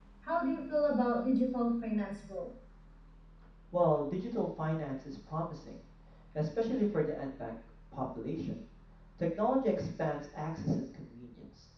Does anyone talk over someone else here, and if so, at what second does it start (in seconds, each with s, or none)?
none